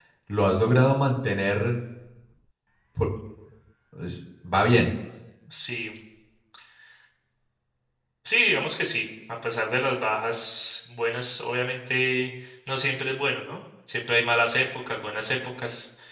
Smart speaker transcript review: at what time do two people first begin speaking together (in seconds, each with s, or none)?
none